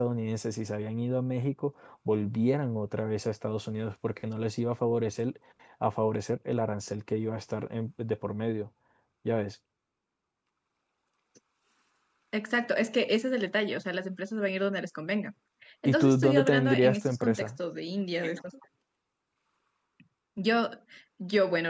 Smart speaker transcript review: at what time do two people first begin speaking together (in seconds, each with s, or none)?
15.8 s